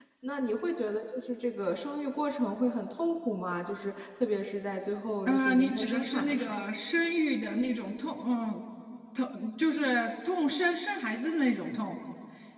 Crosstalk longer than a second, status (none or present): present